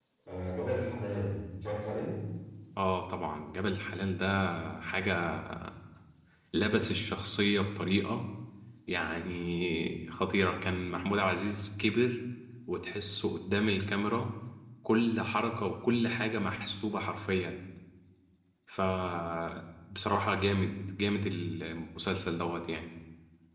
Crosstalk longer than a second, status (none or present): none